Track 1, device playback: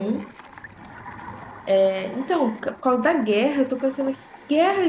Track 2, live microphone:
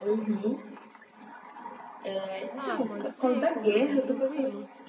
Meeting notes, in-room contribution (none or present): present